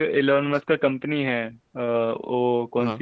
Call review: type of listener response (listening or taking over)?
listening